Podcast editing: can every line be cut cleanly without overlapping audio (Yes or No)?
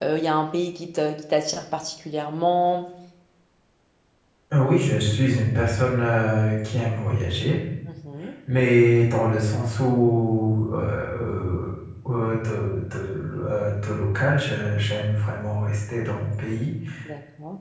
Yes